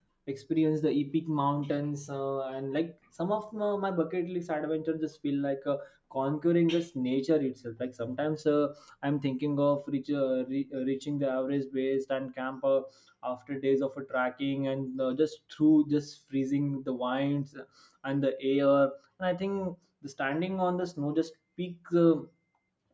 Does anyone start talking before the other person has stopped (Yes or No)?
No